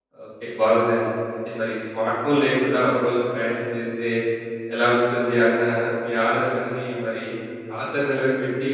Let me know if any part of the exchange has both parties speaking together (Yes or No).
No